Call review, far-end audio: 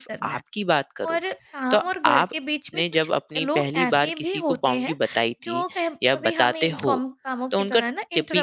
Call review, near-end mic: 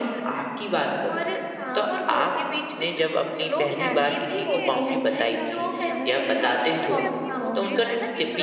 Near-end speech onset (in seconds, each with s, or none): 4.4 s